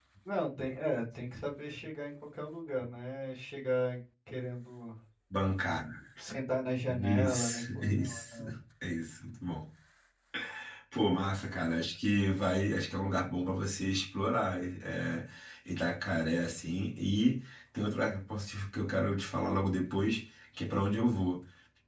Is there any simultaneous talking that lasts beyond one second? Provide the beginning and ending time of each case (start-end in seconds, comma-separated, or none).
6.9-8.4